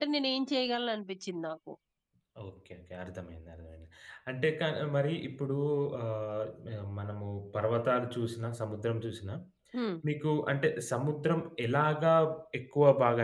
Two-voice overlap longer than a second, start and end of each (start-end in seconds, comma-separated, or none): none